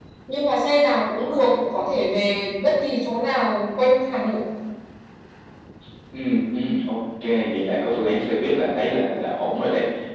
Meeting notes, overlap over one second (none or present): none